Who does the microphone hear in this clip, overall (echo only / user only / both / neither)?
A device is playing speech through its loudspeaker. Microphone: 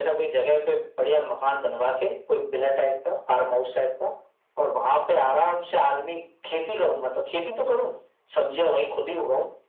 echo only